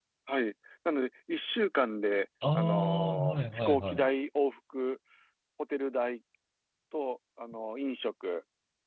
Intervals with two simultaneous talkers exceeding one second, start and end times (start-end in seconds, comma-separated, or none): 2.5-4.0